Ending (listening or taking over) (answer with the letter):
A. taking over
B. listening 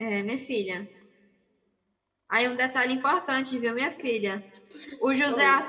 B